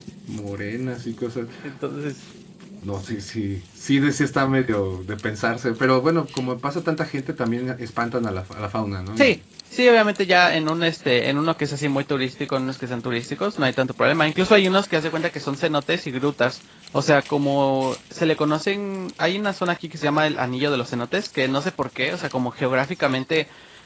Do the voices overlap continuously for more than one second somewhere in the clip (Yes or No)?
No